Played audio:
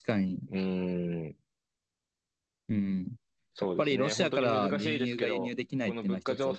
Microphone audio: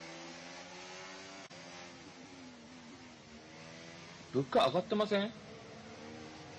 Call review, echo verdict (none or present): none